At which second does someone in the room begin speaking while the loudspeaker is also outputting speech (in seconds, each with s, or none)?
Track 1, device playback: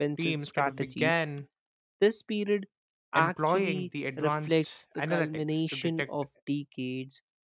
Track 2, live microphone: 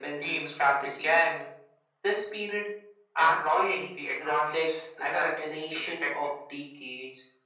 none